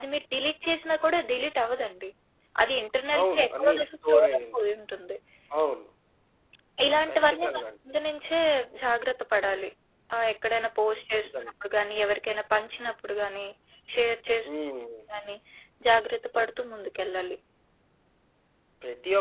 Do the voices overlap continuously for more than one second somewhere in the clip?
Yes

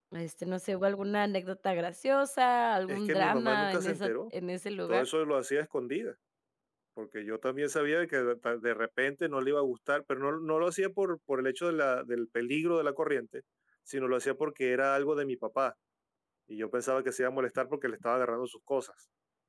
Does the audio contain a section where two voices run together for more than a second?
Yes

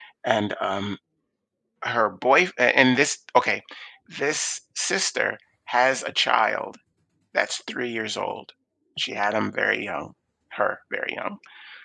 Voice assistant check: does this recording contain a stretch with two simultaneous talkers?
No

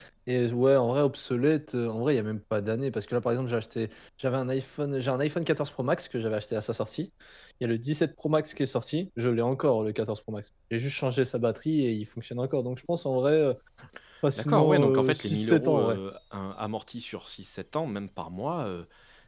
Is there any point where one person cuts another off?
Yes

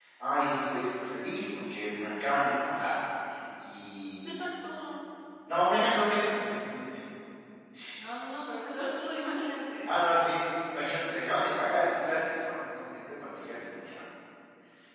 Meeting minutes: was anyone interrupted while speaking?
No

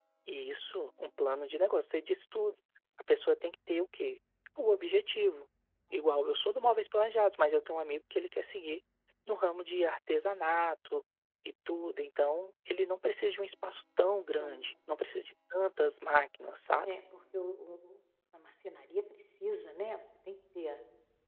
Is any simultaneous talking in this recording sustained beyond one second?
No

